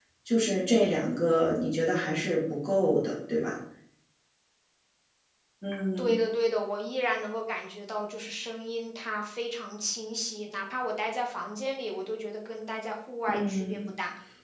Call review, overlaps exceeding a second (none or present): none